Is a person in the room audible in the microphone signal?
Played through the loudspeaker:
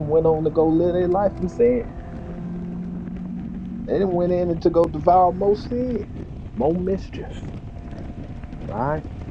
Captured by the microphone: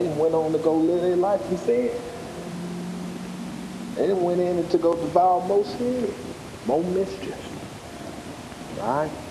No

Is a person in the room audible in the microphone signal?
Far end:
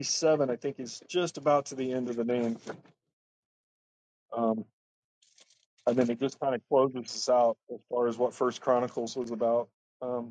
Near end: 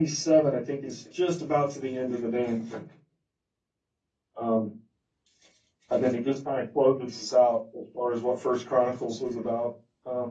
No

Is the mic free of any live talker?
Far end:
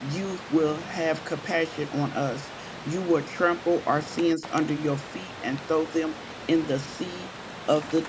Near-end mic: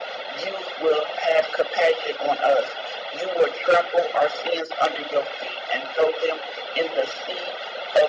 Yes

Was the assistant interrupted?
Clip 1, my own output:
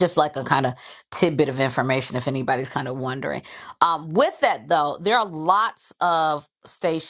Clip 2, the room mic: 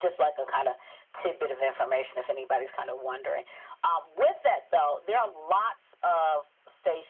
No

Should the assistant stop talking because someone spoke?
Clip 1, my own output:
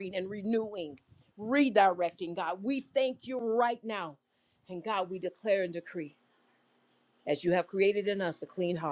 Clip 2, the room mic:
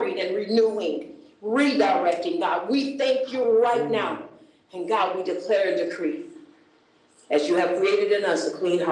Yes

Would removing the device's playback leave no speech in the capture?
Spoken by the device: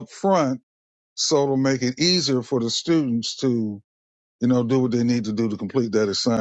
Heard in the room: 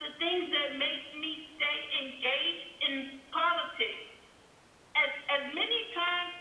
No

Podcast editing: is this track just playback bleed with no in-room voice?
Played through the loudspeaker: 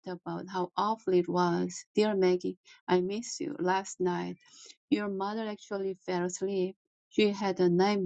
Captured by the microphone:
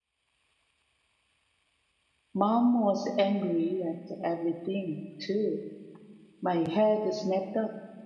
No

